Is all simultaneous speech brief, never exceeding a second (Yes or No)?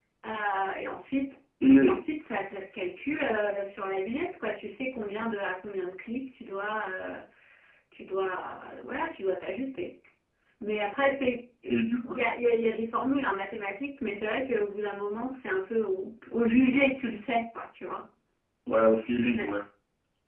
Yes